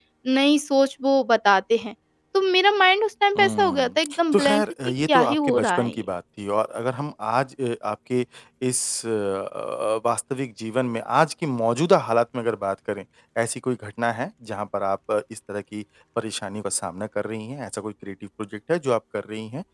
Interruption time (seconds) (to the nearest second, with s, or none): 3 s